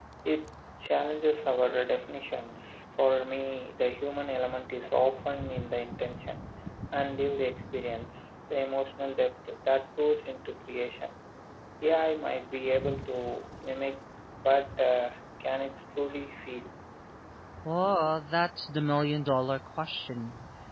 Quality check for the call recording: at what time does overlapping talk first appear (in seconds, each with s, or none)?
none